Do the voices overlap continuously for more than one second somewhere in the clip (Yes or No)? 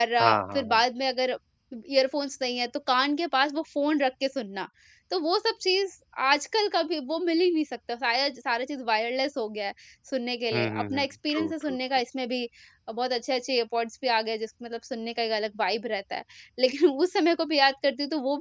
Yes